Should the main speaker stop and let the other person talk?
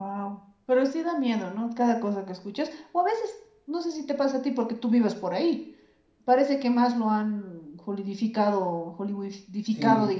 No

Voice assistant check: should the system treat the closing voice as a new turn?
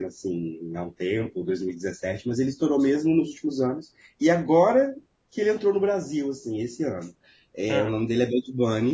No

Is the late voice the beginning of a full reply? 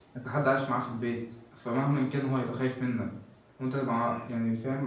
No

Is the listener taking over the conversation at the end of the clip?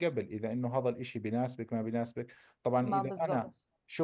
No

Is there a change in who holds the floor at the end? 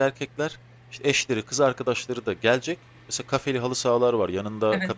No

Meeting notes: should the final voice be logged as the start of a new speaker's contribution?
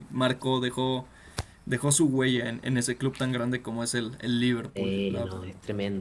Yes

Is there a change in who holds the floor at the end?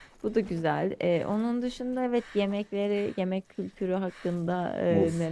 Yes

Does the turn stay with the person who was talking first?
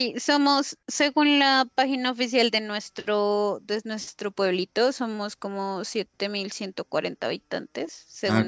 Yes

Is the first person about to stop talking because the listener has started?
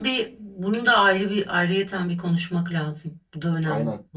Yes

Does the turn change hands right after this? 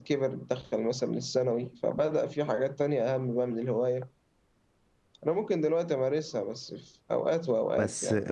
Yes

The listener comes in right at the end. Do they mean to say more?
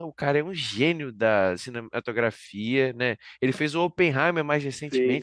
Yes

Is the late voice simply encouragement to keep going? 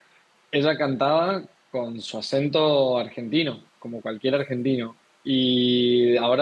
Yes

